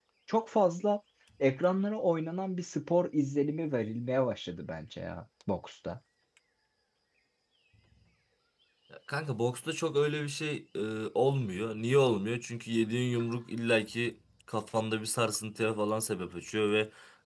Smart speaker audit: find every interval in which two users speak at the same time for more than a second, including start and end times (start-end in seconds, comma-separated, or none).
none